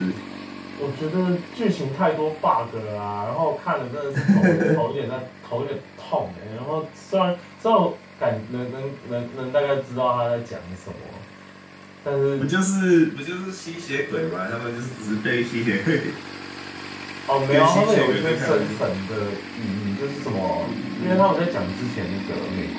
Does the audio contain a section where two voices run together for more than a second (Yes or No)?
Yes